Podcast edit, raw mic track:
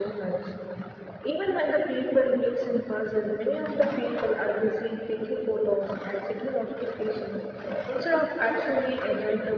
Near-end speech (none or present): none